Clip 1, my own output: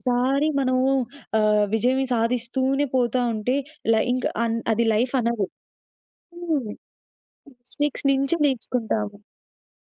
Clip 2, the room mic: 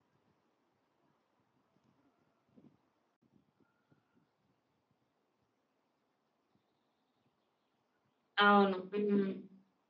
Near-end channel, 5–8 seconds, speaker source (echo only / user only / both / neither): neither